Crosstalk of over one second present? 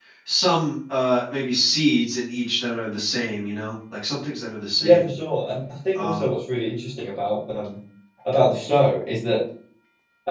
No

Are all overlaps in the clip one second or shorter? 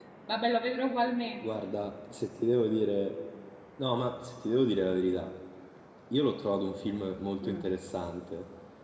Yes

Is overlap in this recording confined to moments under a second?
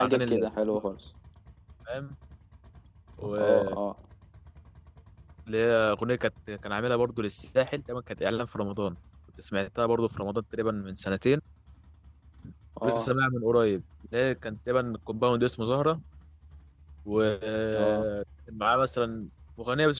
Yes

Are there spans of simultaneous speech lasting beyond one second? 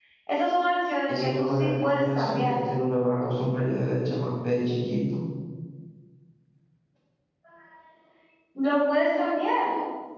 Yes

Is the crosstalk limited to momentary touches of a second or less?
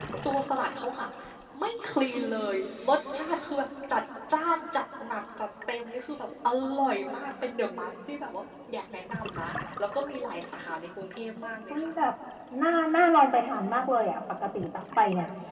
Yes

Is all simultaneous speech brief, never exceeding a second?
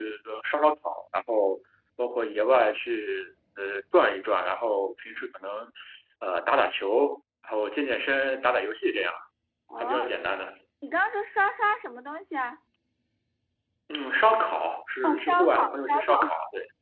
No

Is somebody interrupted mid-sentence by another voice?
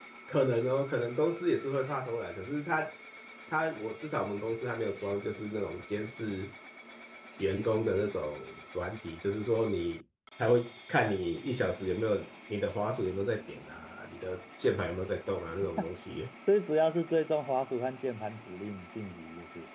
No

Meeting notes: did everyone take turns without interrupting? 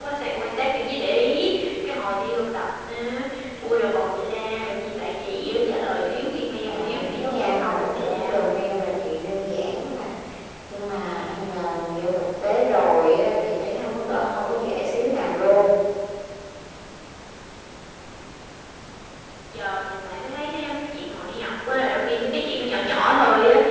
No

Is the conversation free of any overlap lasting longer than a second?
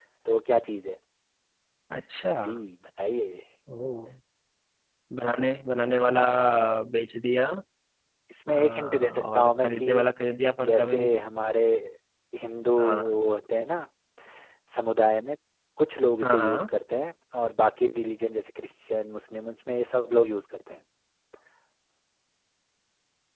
No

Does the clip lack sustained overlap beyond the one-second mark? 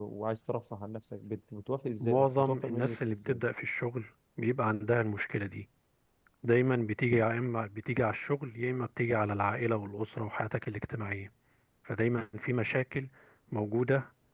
No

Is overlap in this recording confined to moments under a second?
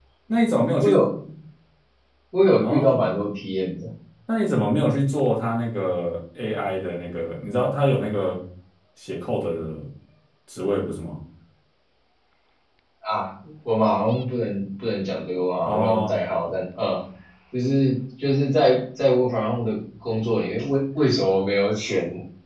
Yes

